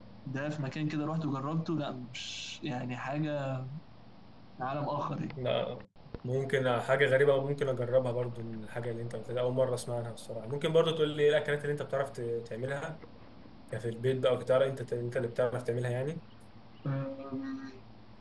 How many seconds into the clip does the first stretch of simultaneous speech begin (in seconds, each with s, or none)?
none